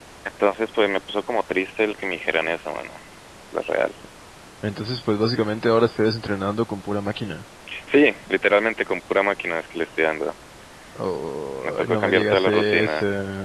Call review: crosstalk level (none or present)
present